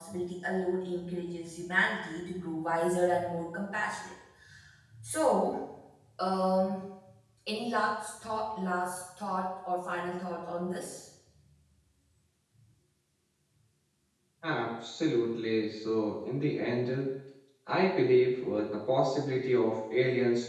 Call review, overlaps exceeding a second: none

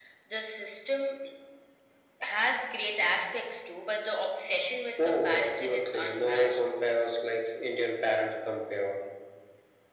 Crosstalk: present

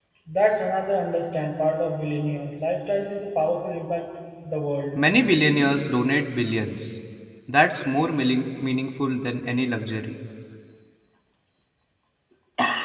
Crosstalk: none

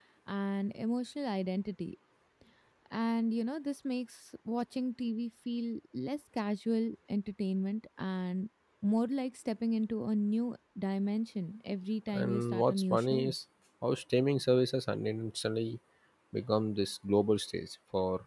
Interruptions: present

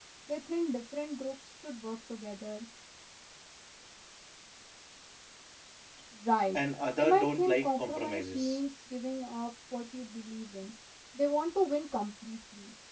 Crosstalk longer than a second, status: present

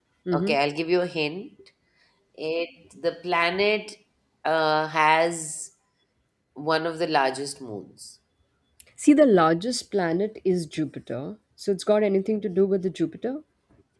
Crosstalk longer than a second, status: none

